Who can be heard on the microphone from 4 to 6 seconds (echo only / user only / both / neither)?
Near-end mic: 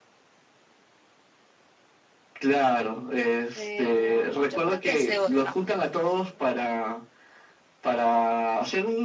both